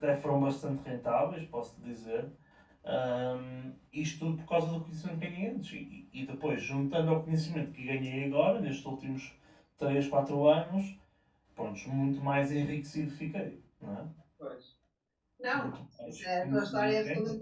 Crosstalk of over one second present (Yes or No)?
Yes